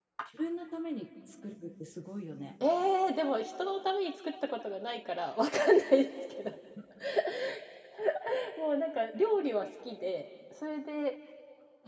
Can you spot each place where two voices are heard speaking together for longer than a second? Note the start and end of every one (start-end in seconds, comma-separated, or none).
none